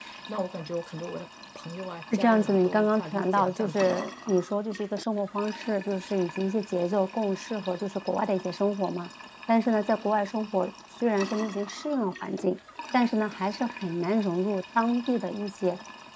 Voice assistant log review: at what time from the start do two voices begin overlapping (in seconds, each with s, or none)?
2.1 s